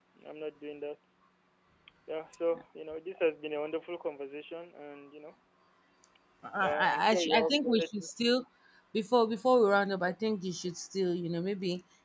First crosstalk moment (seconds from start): 6.6 s

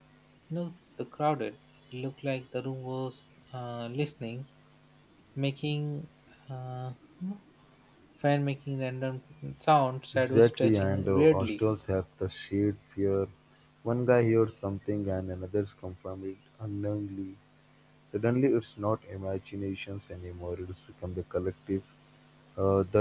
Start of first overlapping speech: 10.1 s

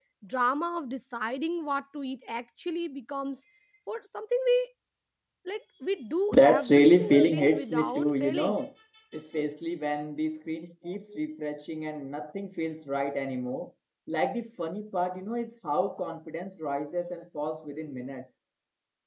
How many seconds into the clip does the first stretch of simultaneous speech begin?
6.3 s

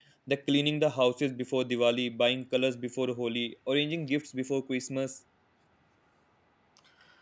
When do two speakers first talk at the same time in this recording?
none

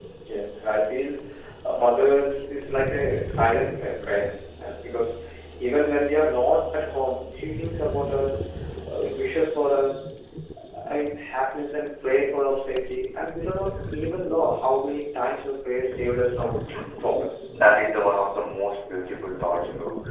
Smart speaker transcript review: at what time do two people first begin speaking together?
none

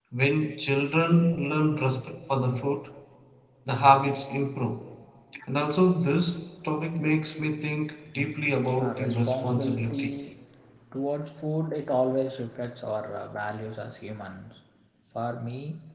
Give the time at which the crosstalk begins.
8.7 s

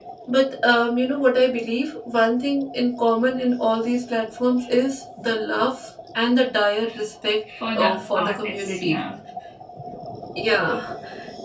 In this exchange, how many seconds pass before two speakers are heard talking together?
7.8 s

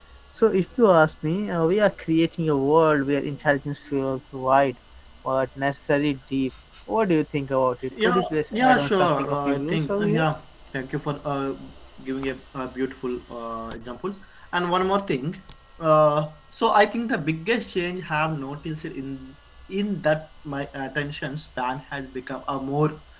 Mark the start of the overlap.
7.9 s

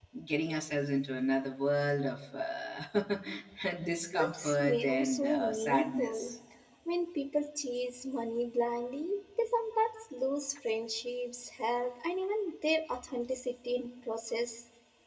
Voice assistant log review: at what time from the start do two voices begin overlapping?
4.1 s

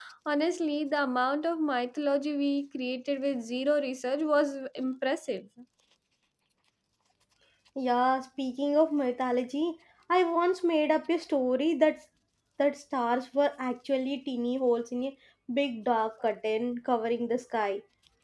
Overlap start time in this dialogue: none

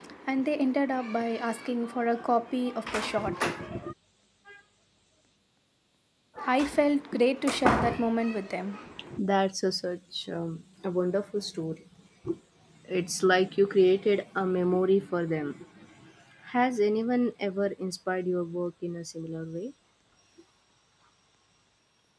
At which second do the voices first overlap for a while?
none

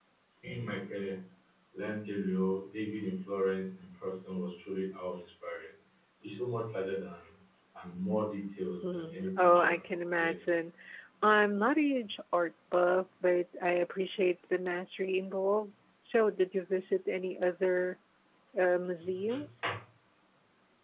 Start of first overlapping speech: 8.8 s

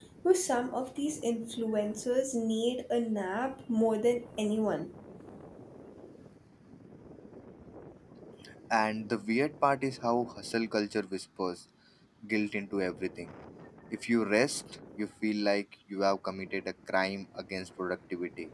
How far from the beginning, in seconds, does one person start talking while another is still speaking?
none

